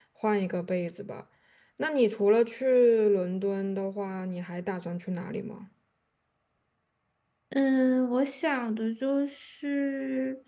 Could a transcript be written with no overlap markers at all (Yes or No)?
Yes